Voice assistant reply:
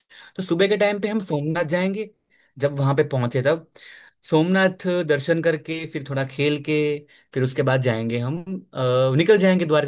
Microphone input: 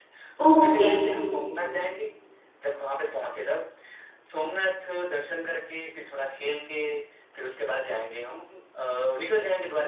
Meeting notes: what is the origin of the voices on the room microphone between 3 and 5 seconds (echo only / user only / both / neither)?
echo only